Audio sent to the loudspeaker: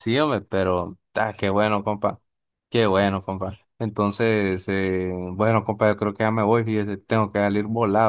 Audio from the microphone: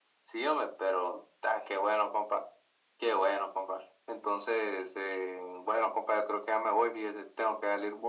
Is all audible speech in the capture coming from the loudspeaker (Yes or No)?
Yes